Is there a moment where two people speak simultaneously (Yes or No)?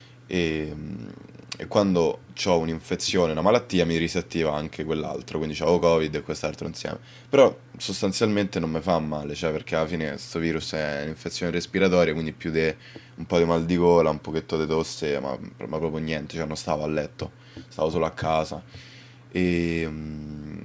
No